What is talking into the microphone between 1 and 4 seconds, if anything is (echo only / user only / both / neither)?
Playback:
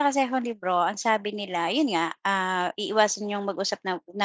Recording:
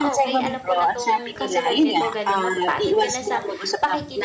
both